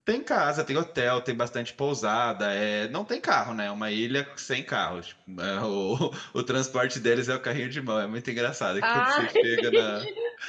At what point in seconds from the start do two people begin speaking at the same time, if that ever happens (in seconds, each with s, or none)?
8.8 s